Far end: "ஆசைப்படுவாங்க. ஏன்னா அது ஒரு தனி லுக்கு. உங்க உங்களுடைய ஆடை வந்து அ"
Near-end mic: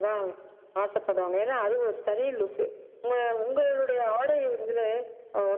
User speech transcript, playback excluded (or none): none